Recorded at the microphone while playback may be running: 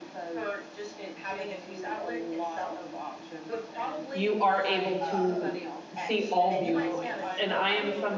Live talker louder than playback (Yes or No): Yes